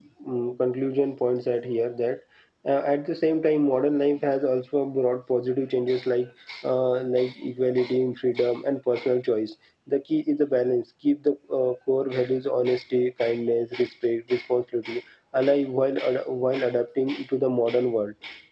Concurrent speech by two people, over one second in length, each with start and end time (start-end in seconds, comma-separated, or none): none